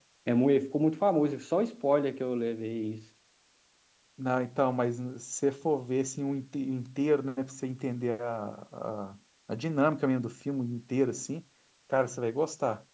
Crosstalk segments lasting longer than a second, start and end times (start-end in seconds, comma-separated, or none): none